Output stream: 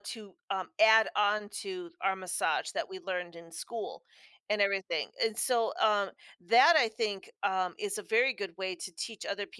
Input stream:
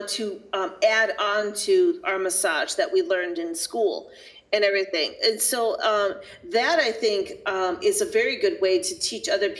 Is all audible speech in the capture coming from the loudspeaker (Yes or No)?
Yes